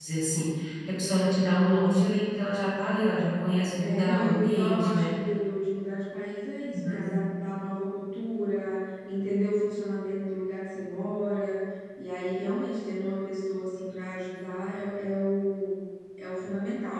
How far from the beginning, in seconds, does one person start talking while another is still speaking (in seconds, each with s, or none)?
3.8 s